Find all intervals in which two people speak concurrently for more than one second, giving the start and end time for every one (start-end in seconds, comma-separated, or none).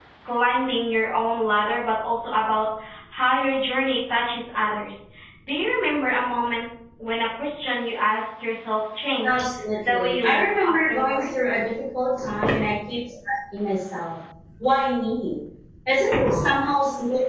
9.8-11.3